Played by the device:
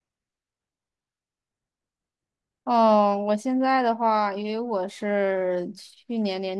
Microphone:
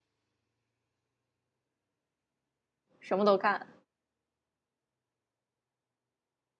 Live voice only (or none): 什么都看，